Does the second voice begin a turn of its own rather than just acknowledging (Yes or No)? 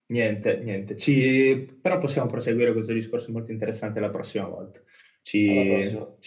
No